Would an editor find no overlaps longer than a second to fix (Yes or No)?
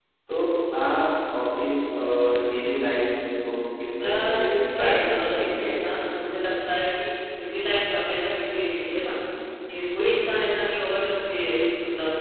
No